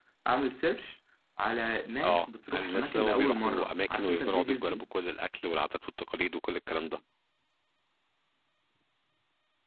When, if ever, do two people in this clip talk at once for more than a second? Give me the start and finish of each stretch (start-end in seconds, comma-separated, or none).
2.0-4.8